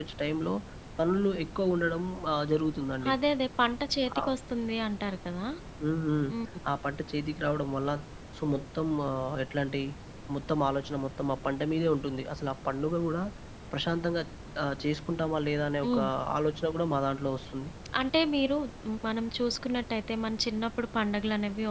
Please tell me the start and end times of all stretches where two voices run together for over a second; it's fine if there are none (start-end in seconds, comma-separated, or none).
none